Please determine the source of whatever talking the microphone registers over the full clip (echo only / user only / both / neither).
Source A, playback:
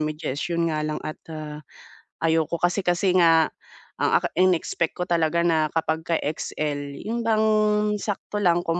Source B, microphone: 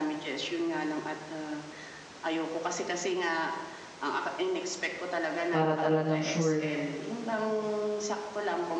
both